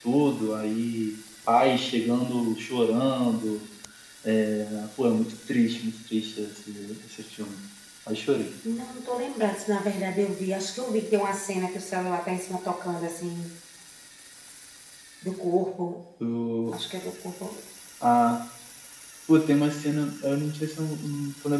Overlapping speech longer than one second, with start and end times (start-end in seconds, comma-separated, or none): none